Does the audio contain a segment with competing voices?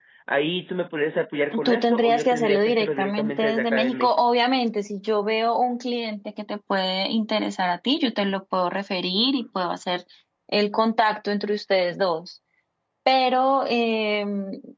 Yes, from 1.5 s

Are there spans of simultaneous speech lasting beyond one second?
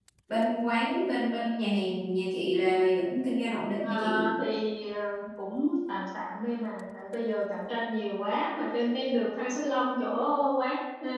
No

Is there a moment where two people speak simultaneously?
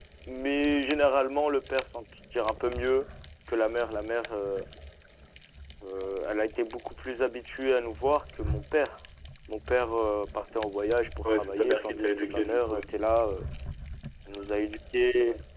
Yes, from 11.2 s

